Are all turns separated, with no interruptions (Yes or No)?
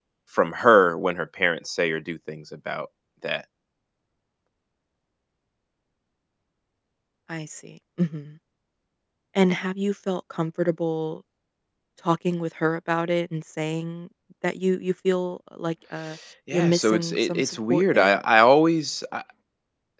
No